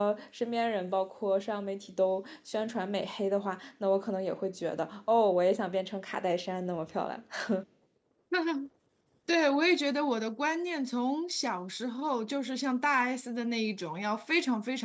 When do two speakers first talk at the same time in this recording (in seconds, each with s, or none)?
none